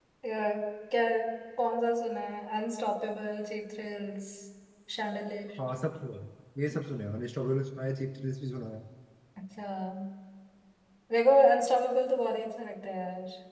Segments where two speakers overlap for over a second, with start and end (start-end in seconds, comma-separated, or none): none